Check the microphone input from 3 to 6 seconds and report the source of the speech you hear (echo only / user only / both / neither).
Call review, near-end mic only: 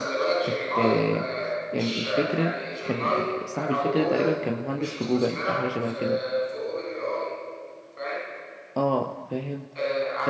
both